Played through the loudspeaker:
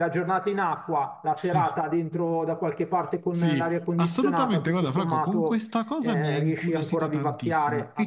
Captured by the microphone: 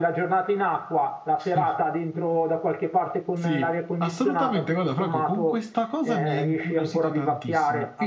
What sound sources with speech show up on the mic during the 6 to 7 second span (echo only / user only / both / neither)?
echo only